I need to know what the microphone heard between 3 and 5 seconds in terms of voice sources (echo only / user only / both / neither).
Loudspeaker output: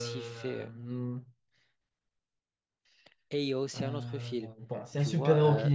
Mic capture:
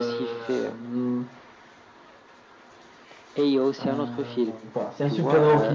echo only